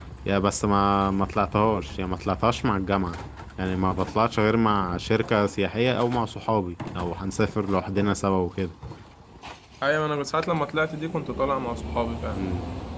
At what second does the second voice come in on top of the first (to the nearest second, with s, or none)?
none